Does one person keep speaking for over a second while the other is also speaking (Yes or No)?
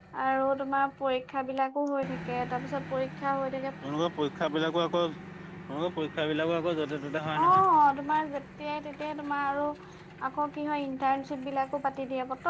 No